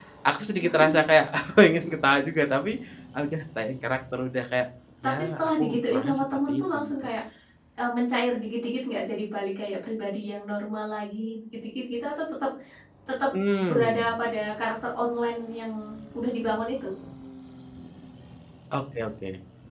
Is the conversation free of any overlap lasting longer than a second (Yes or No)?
No